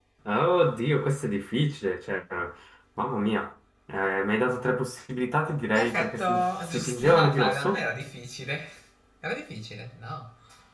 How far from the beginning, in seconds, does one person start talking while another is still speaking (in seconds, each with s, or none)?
5.6 s